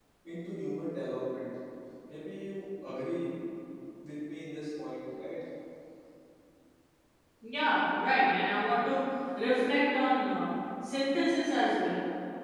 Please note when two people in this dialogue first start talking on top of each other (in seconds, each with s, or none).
none